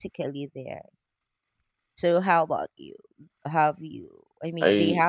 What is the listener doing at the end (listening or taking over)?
taking over